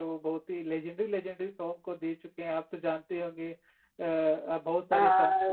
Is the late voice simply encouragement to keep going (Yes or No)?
No